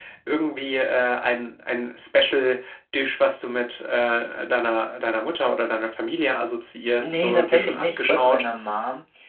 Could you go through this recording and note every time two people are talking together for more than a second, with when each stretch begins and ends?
7.0-8.4

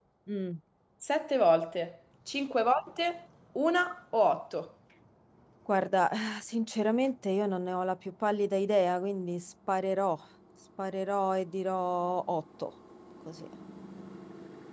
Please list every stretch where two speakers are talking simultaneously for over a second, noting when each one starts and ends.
none

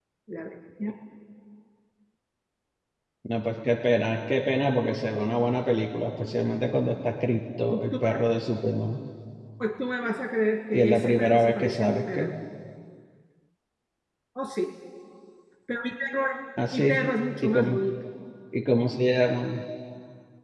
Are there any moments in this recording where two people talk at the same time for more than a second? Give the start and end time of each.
10.7-12.3

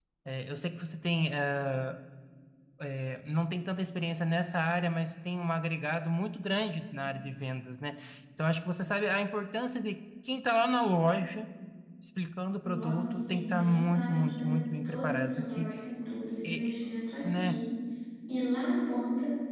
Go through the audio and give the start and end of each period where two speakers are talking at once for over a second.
12.6-15.7

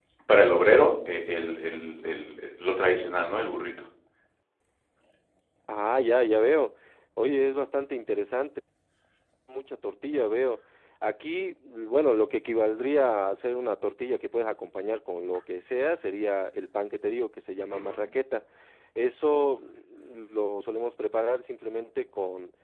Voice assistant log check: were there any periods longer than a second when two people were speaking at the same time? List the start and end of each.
none

